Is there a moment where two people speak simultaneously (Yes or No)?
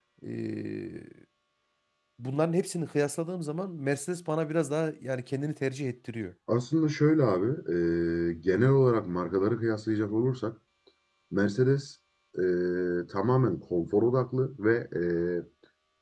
No